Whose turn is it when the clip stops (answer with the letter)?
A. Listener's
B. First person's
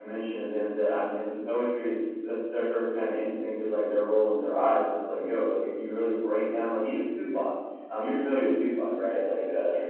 B